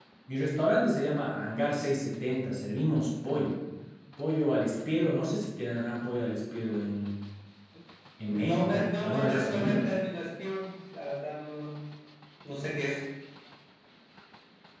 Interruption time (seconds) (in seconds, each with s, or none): 8.3 s